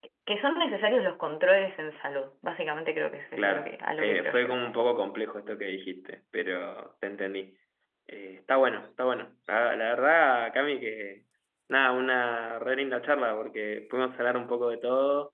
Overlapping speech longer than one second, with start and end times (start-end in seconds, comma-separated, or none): 3.4-4.6